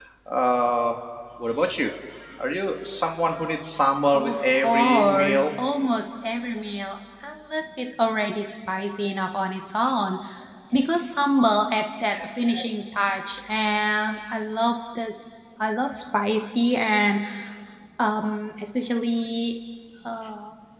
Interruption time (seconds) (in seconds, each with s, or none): 4.1 s